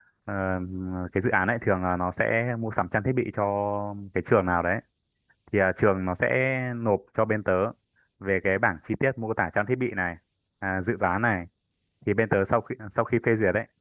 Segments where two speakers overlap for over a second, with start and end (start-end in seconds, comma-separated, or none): none